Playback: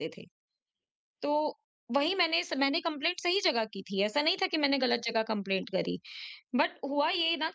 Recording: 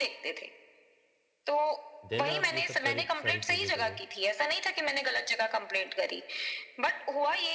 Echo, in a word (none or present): present